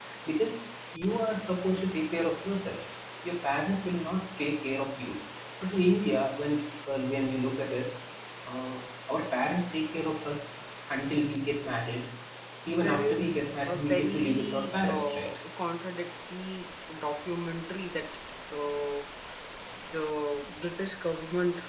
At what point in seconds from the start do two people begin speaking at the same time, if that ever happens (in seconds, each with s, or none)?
12.7 s